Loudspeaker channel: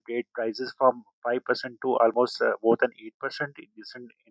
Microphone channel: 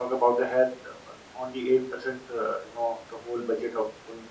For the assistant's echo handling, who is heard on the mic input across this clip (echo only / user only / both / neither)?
user only